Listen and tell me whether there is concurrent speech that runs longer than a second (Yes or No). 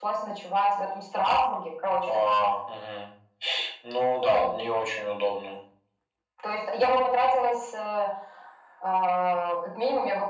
No